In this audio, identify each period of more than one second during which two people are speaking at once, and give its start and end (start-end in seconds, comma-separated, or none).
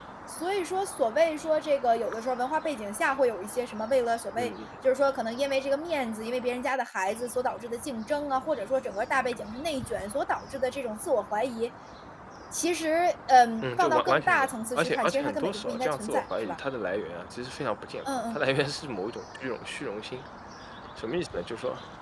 13.6-16.6